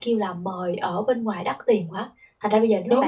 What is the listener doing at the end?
listening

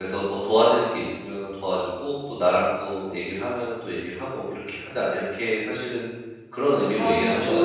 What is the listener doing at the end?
taking over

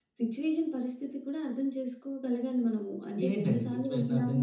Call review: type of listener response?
taking over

